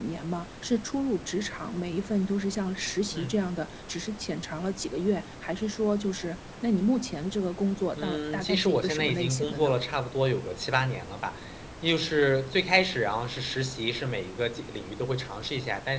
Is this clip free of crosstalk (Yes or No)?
No